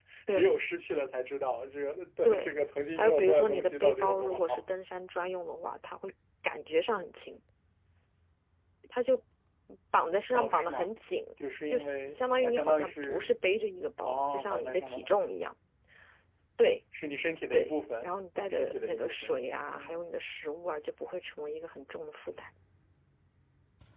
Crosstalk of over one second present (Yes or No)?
Yes